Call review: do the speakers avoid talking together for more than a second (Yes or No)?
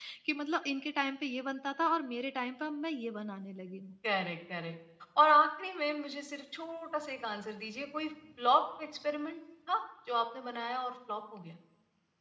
Yes